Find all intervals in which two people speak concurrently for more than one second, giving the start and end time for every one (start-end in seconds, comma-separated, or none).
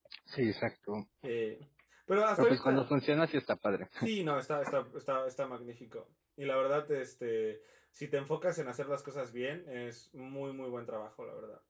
none